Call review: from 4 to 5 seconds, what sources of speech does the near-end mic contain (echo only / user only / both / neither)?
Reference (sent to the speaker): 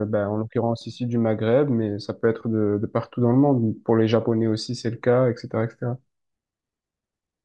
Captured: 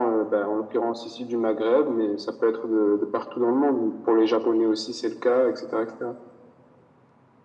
echo only